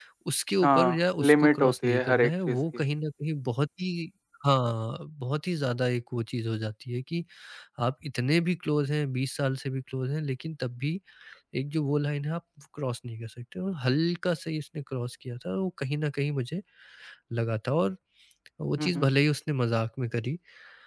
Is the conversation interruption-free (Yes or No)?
No